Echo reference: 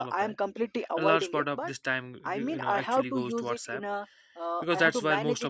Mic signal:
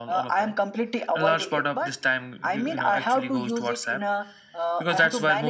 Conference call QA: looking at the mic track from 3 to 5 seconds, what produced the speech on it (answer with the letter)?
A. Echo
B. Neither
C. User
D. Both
A